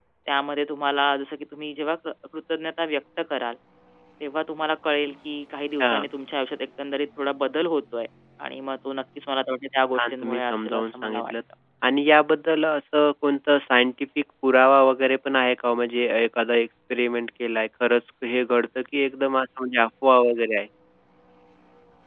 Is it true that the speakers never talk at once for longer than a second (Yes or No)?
No